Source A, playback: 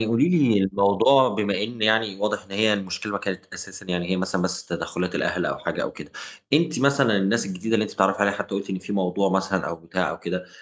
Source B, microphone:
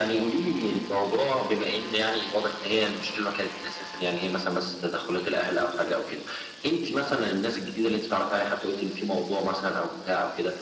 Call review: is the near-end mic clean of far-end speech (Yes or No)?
No